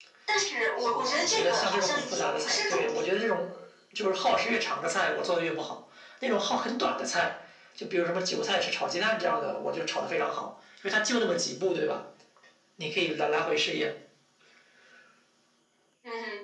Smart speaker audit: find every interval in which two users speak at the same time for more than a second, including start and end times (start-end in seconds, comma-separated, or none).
0.9-3.0